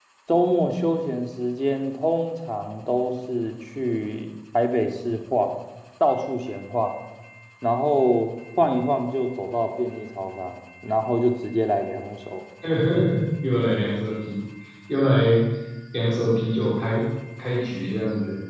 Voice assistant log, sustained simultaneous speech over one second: none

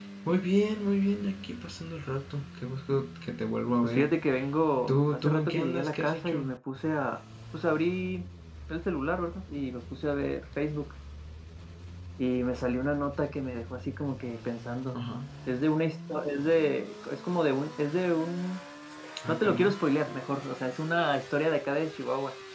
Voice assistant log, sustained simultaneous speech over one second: present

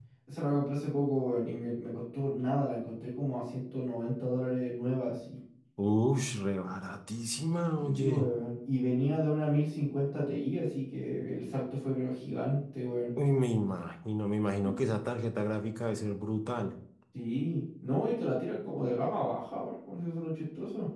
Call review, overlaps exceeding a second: none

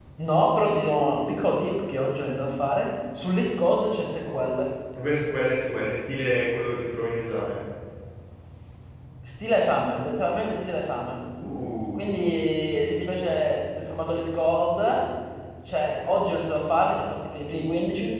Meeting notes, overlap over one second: none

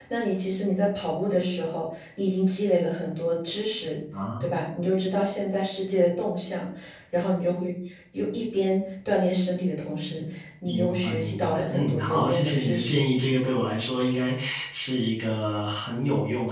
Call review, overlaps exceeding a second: present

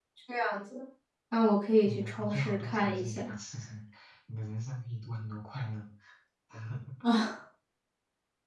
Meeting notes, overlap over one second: present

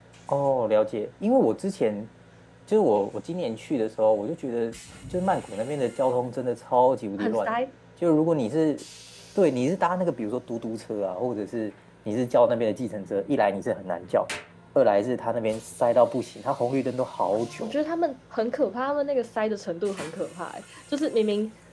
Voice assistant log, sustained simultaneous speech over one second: none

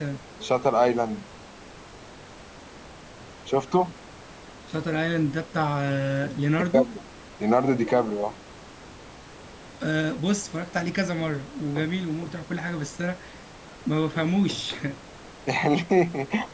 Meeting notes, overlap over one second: none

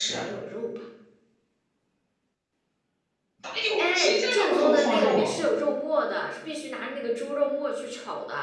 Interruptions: present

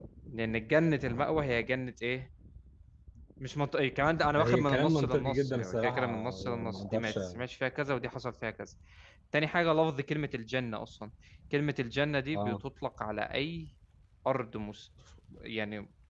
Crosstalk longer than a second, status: present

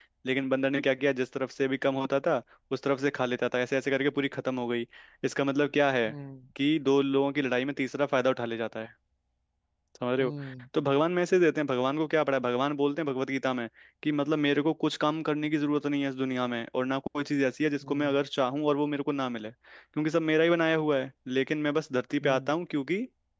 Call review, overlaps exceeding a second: none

